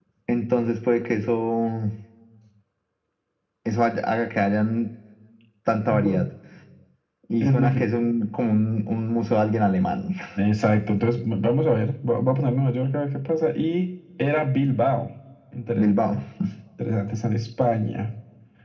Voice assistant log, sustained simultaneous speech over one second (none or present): none